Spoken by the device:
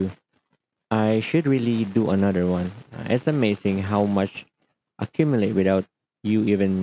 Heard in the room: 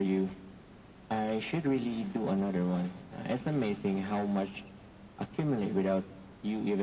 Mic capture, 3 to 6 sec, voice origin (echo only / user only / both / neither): echo only